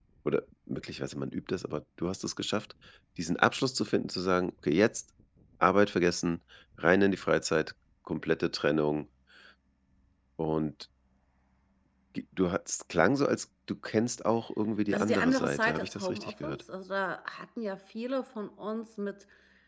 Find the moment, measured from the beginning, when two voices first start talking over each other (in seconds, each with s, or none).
14.9 s